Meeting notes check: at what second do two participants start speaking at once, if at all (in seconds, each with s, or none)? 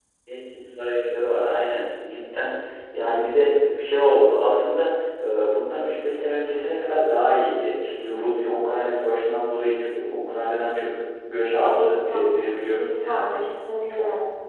11.6 s